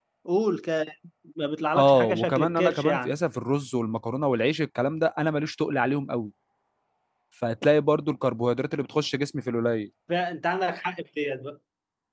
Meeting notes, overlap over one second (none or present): present